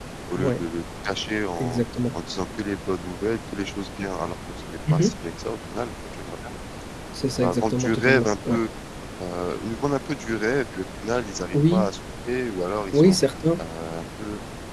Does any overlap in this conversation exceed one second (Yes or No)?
Yes